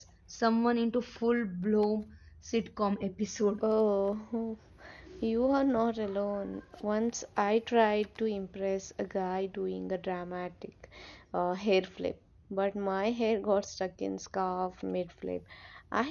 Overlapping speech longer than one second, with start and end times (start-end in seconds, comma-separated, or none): none